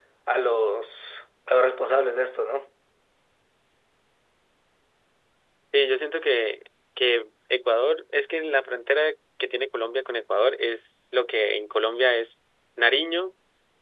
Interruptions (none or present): none